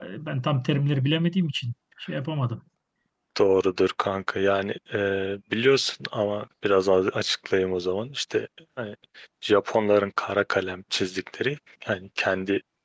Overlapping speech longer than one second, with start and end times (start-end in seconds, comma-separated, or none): none